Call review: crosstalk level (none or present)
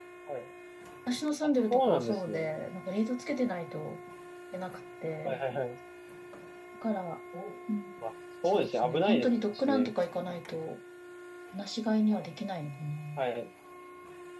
present